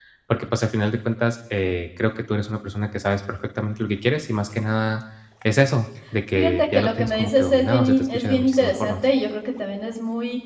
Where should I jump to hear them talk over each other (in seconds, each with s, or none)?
6.3 s